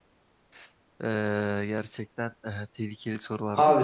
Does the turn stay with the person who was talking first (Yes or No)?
No